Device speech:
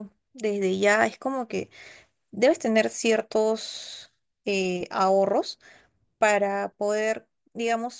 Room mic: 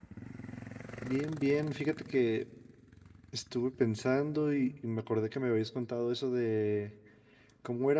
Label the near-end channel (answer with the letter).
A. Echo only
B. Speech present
B